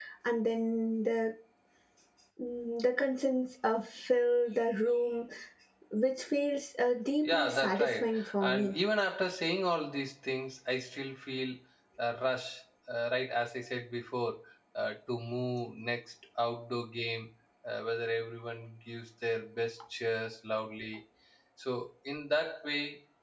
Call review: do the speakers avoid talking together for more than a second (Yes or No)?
No